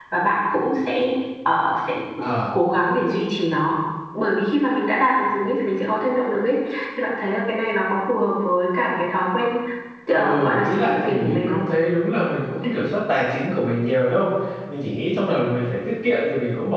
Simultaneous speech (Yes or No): Yes